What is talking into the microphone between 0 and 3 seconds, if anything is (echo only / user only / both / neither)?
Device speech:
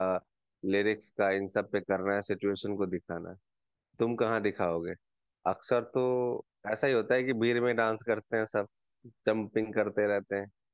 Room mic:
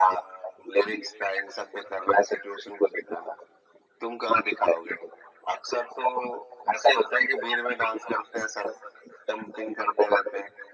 echo only